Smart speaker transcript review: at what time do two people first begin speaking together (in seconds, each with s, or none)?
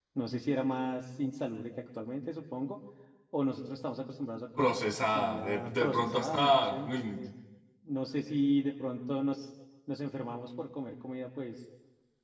4.6 s